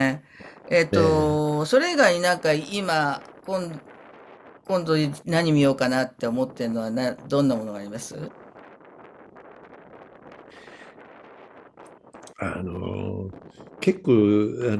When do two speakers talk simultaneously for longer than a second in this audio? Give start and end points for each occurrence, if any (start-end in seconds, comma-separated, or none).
none